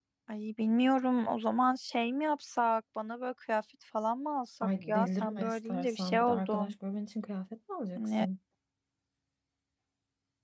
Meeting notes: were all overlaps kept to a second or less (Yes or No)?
No